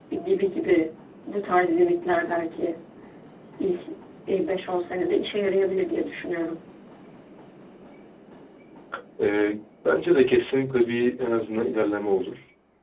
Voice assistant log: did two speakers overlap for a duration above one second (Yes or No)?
No